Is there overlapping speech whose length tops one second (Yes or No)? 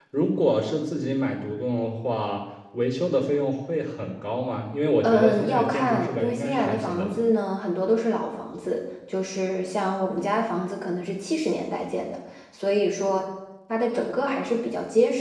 Yes